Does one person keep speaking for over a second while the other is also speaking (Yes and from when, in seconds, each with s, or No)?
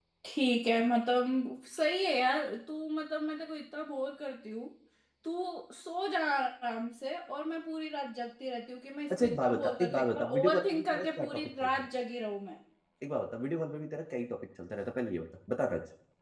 Yes, from 9.1 s